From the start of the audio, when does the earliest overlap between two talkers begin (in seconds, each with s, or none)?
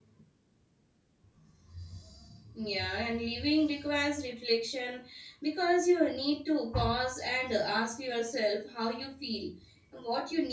none